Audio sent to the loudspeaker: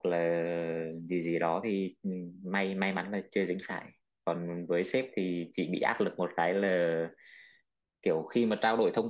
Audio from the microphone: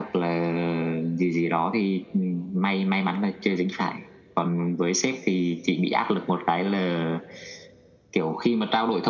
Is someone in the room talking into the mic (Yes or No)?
No